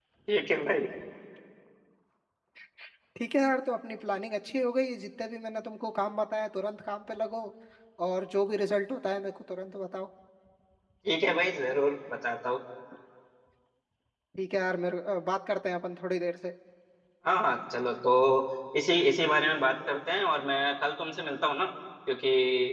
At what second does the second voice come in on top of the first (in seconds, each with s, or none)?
none